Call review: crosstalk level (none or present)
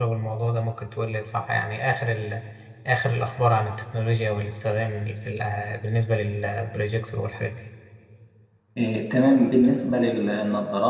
none